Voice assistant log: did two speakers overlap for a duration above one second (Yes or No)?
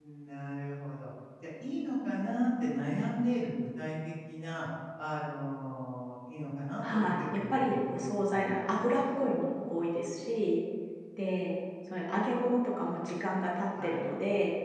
Yes